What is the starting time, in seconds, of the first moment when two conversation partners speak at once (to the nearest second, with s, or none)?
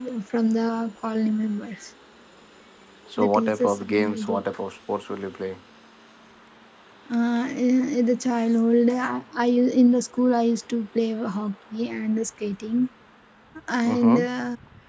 3 s